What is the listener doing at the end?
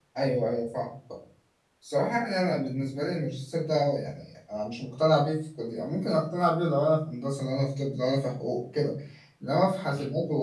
listening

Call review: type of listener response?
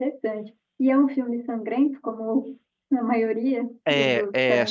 taking over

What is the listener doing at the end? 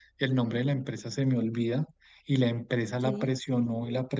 listening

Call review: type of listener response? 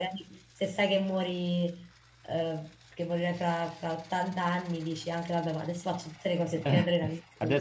taking over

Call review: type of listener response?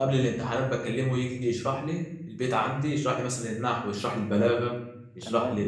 listening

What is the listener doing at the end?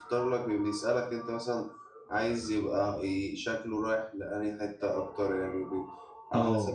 listening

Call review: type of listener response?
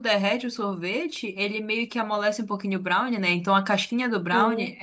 listening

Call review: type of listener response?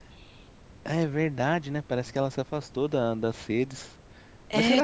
taking over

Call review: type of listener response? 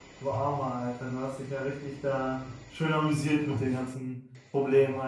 taking over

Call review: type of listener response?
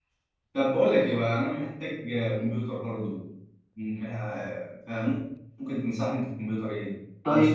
taking over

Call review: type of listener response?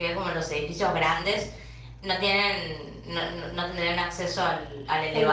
listening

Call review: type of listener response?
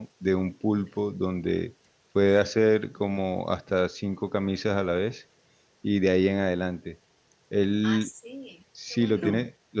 listening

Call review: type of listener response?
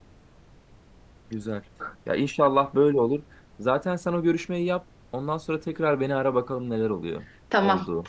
taking over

